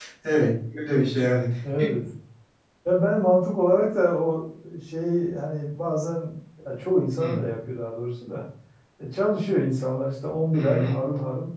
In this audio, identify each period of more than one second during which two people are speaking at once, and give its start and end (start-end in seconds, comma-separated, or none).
none